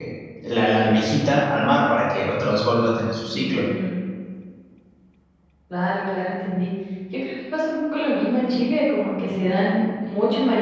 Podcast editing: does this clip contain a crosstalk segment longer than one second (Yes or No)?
No